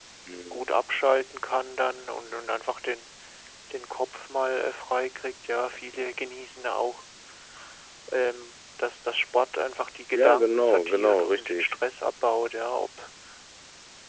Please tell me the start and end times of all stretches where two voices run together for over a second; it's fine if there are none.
10.1-11.7

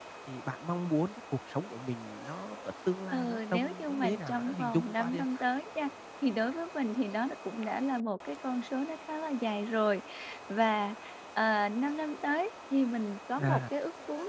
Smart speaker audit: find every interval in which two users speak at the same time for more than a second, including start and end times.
3.1-5.2

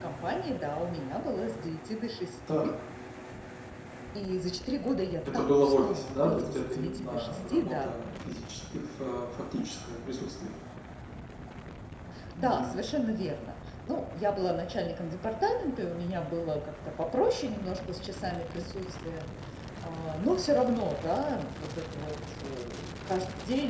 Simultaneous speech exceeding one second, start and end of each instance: 5.3-7.9

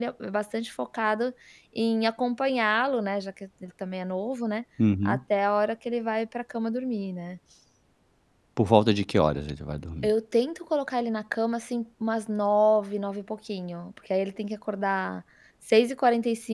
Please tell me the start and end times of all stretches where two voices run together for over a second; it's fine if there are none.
none

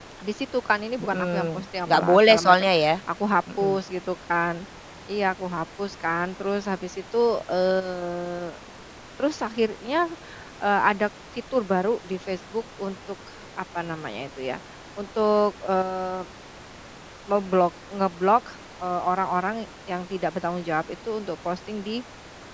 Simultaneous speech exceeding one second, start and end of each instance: 1.0-2.7

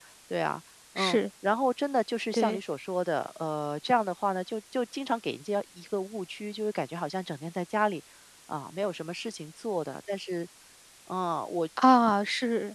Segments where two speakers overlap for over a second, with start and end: none

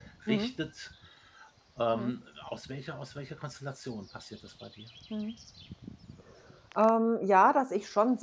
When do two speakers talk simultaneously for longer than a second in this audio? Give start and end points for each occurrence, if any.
none

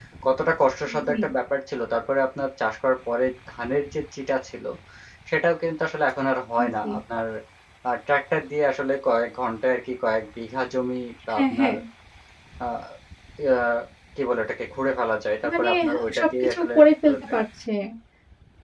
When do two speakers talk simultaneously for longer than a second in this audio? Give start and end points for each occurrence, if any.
15.5-17.4

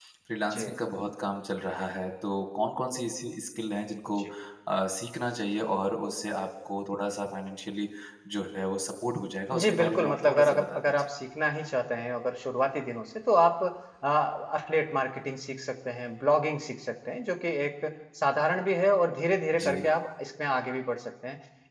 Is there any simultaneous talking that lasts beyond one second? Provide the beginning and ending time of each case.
9.6-10.8

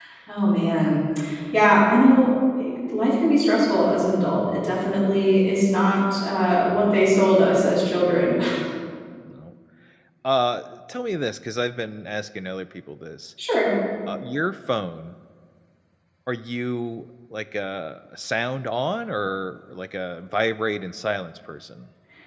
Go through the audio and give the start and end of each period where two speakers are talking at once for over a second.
none

